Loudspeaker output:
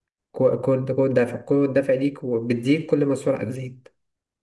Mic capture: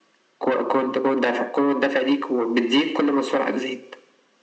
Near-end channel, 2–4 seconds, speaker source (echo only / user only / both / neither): echo only